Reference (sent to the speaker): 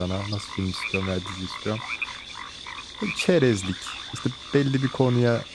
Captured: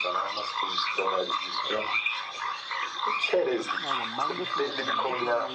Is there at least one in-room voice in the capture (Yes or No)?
Yes